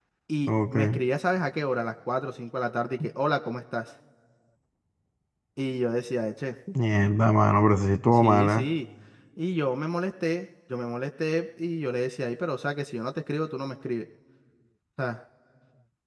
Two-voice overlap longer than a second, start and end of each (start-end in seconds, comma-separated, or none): none